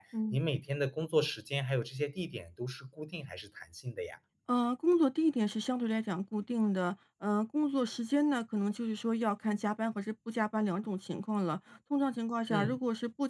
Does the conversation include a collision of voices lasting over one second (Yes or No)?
No